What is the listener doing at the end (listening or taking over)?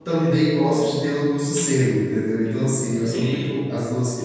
listening